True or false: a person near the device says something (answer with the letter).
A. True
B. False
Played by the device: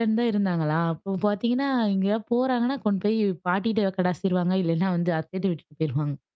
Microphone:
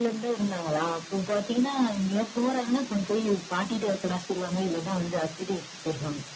B